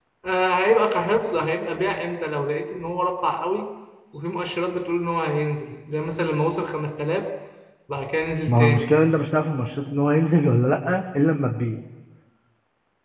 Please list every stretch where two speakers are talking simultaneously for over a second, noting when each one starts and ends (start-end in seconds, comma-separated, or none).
none